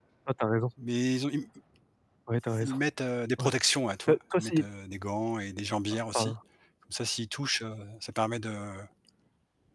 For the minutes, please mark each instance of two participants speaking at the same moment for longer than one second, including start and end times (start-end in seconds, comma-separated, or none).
none